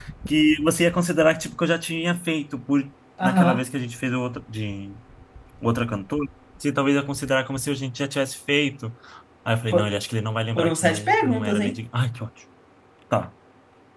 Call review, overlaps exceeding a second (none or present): present